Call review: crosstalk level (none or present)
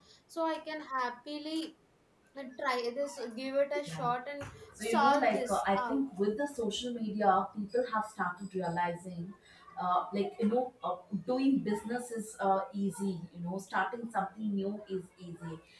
present